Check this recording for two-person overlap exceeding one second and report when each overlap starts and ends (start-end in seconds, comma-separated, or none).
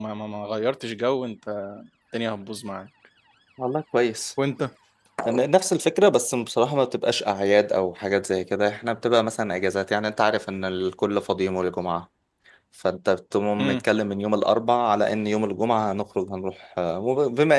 none